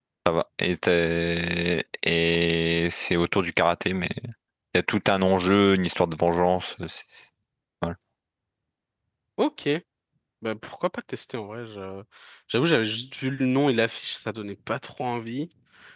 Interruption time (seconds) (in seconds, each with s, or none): none